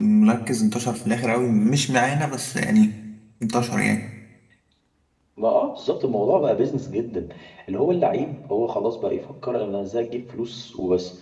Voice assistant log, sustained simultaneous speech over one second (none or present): none